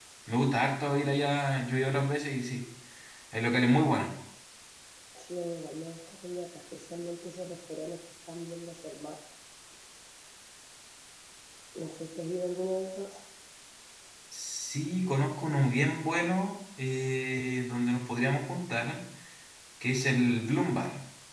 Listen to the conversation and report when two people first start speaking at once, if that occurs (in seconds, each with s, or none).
none